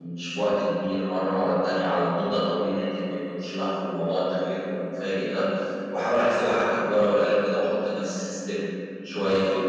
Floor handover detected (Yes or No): No